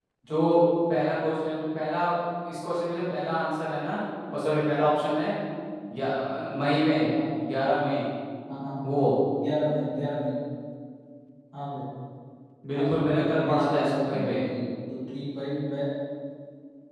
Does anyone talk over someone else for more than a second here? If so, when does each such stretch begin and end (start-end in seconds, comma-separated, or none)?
12.8-14.4